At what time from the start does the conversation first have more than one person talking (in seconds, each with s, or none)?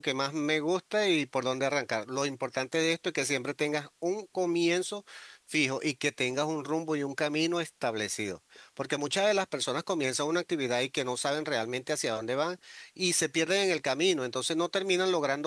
none